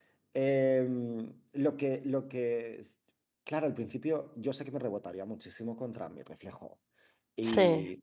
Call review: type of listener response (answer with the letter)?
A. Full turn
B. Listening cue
B